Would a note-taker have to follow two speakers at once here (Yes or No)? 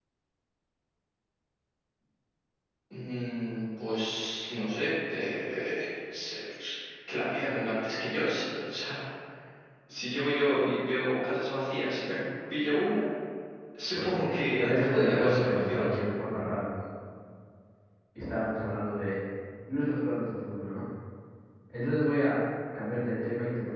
Yes